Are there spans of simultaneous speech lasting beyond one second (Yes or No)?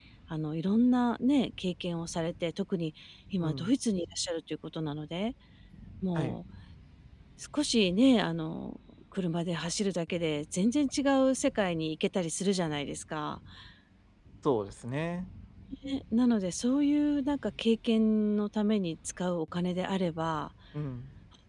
No